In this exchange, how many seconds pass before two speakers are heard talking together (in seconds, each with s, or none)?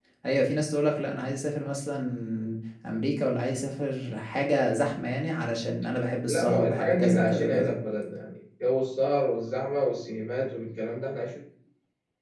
6.3 s